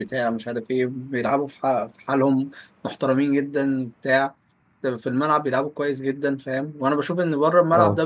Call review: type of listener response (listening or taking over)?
listening